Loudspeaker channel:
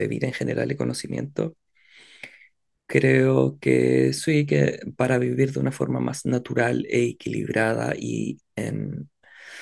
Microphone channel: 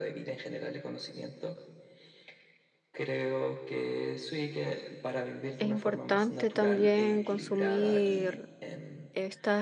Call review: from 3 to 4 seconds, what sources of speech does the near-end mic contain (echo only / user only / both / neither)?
echo only